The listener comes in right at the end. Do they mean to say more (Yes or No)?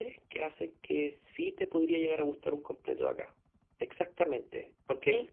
No